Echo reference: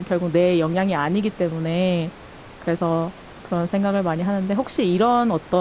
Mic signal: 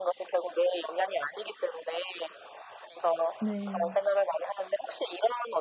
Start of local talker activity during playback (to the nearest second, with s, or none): 3 s